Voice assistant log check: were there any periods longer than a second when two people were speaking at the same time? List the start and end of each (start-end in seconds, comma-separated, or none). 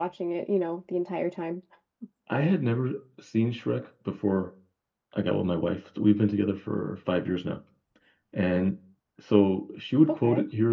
none